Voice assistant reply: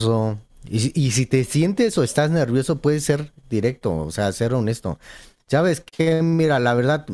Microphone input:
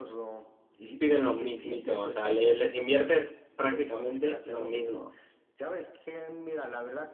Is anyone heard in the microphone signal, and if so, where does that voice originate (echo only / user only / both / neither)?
both